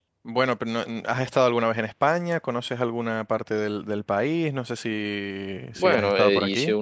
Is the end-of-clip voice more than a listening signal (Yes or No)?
Yes